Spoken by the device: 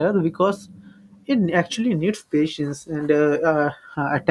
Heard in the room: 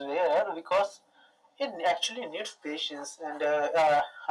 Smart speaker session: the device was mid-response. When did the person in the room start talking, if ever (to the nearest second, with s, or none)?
none